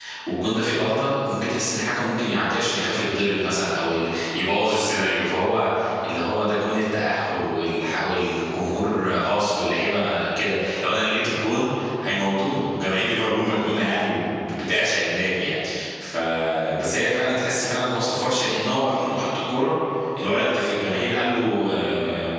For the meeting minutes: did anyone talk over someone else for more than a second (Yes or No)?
No